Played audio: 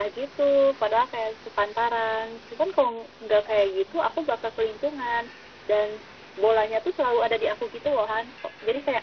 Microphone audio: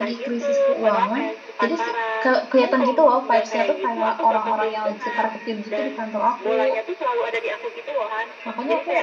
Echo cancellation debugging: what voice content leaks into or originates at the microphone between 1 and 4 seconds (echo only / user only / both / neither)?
both